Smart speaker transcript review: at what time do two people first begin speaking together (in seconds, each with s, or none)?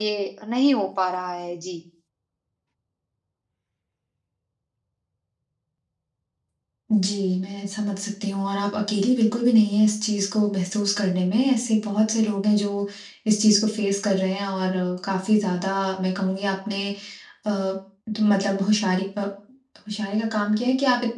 none